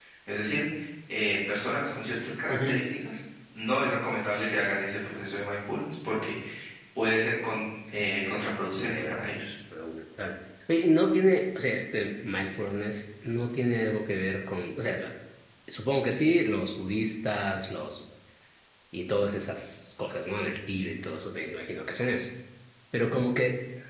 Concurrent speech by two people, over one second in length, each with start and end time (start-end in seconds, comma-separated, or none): none